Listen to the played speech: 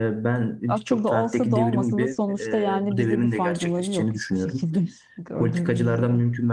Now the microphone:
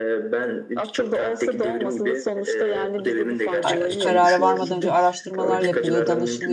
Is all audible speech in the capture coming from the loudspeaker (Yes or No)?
No